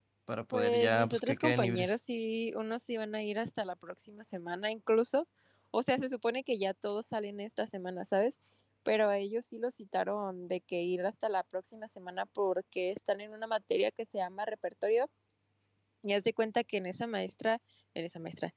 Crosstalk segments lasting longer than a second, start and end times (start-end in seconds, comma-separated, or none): 0.5-1.9